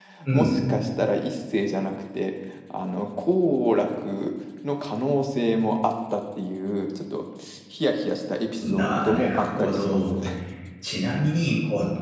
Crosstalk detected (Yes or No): Yes